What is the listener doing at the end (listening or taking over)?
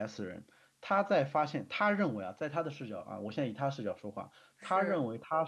listening